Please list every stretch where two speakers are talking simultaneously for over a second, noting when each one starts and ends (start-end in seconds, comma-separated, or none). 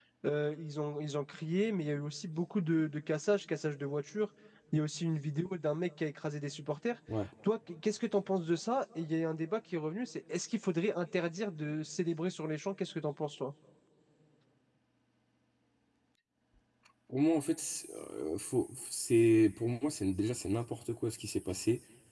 none